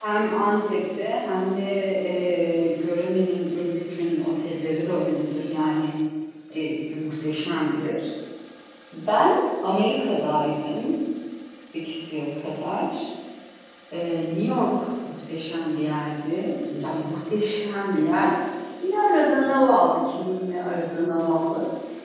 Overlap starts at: none

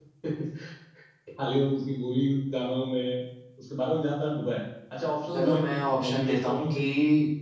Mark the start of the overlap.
5.3 s

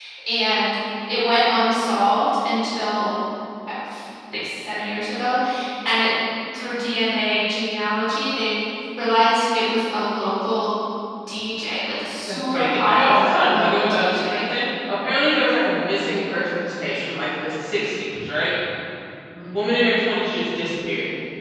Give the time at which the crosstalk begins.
12.3 s

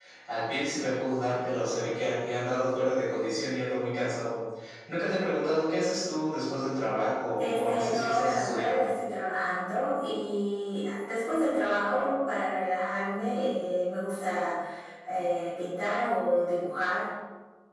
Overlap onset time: 7.4 s

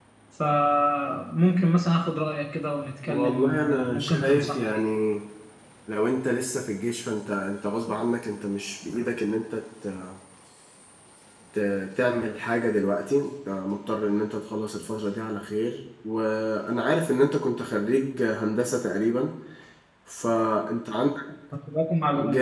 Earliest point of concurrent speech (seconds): 3.1 s

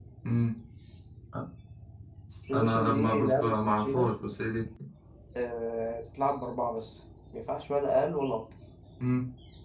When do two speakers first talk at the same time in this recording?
2.5 s

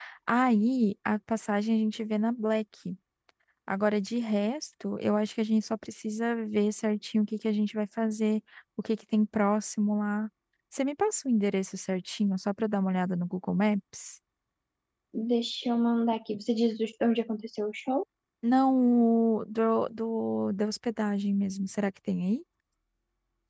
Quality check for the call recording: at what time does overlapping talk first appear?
none

